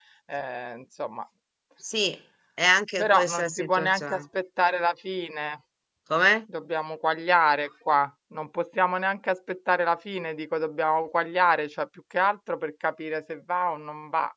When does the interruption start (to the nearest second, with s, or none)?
3 s